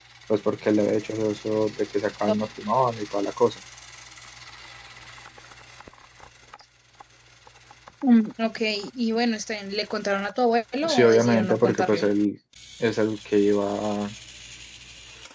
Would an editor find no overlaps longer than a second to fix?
No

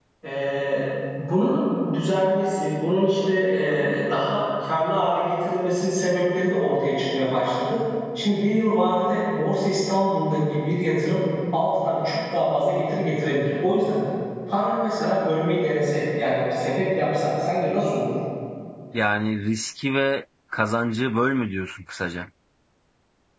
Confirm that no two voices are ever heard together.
Yes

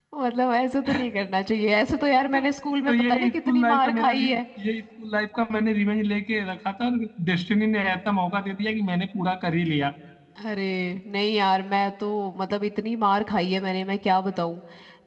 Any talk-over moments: Yes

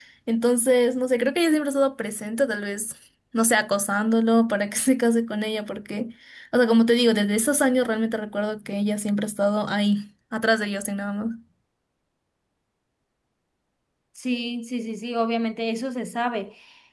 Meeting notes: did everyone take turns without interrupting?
Yes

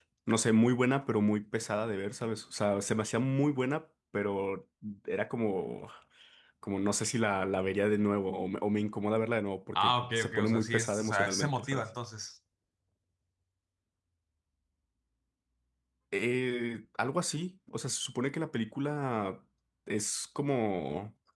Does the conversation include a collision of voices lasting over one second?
Yes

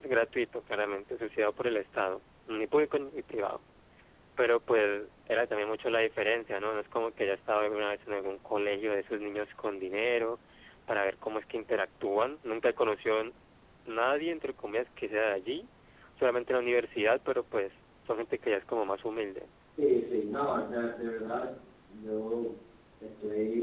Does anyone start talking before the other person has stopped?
No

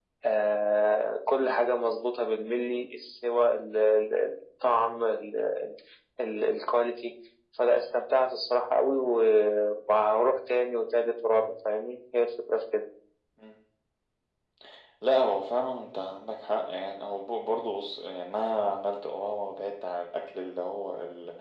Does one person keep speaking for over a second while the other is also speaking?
No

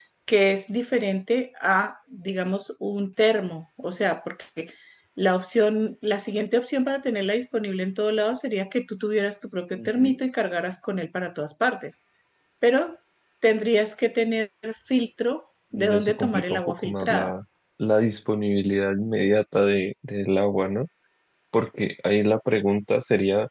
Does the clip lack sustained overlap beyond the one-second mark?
No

